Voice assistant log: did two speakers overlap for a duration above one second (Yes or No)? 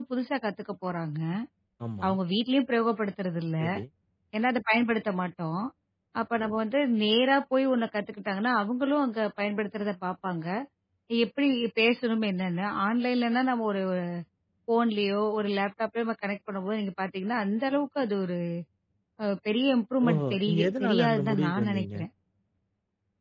Yes